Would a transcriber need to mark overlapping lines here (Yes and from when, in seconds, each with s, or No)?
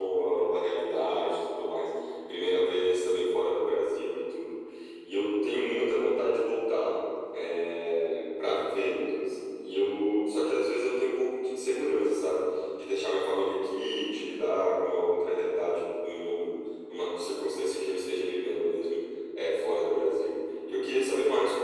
No